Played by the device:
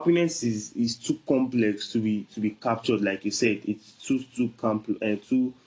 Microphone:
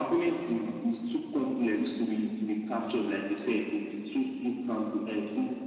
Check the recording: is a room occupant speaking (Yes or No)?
No